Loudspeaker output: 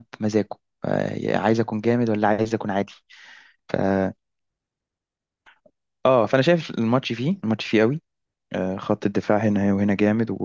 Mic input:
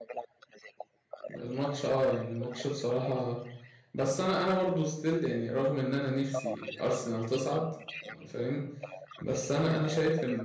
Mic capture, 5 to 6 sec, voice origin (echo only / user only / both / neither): user only